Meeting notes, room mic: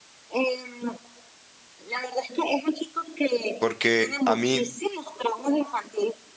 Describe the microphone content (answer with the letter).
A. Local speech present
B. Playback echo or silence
A